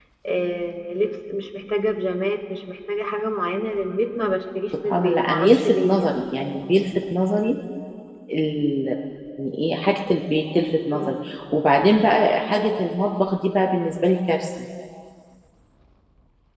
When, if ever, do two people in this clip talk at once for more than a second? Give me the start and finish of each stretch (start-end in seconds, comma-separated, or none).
4.9-6.2